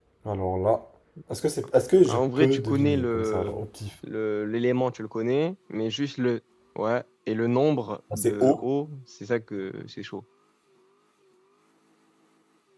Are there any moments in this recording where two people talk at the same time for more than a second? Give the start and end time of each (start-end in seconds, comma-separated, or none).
2.1-3.6